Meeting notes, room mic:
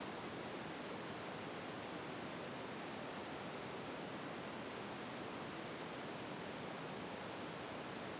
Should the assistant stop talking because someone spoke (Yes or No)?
No